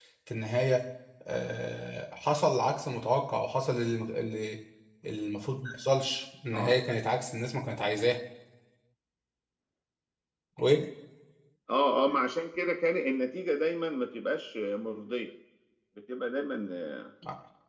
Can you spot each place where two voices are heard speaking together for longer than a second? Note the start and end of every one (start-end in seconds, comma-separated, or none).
none